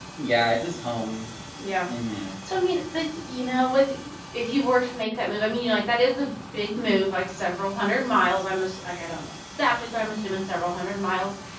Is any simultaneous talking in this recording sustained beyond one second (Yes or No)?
No